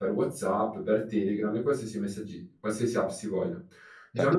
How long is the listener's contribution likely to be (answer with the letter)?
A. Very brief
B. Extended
B